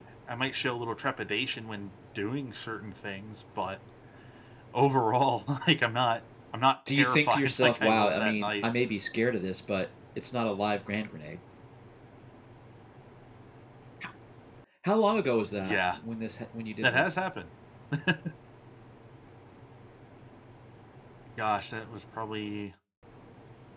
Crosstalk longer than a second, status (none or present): present